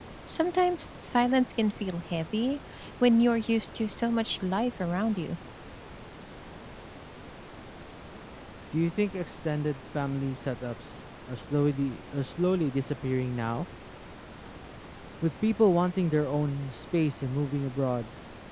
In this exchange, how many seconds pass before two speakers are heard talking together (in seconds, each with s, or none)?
none